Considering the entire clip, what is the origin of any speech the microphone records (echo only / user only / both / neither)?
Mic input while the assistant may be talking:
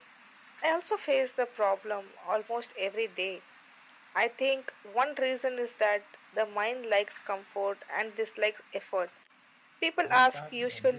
both